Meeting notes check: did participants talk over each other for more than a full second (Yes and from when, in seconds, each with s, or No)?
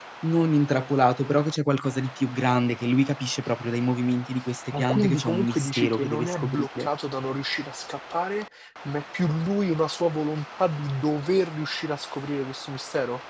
Yes, from 4.7 s